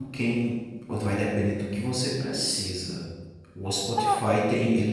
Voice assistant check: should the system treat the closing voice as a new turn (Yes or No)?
No